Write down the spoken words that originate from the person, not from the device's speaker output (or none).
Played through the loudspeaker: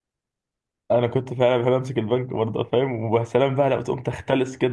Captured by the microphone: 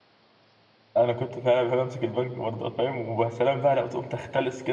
none